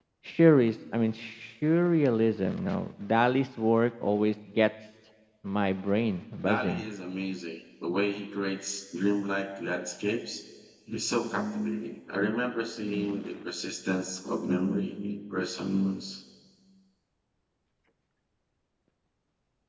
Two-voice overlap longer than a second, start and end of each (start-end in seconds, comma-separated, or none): none